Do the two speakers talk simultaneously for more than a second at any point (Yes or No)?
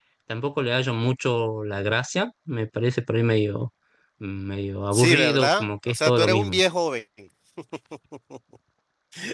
Yes